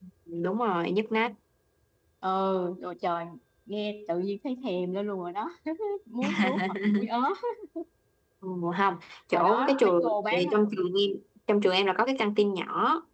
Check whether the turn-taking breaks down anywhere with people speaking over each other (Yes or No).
Yes